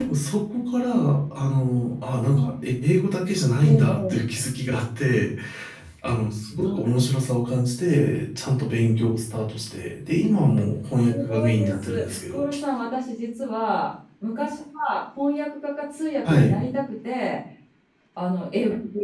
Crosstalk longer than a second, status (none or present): present